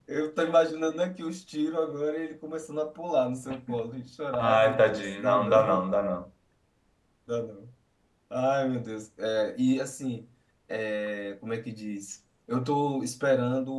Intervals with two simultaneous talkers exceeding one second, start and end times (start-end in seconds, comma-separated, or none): 4.4-5.8